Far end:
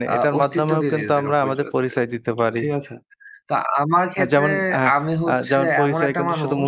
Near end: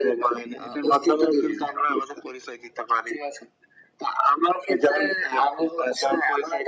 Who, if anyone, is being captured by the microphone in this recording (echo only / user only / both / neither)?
echo only